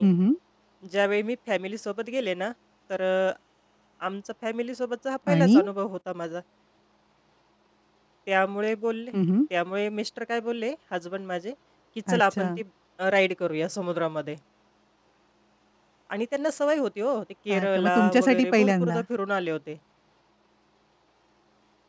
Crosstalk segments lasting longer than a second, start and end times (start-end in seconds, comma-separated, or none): 17.5-19.0